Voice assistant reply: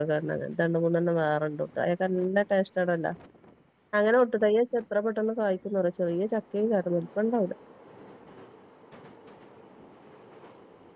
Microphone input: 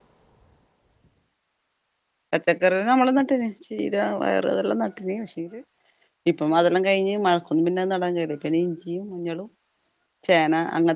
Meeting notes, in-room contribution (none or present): present